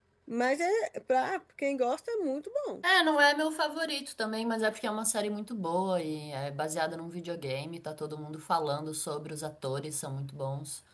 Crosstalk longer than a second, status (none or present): none